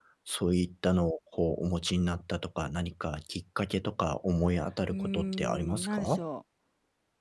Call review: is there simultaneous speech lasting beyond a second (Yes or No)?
Yes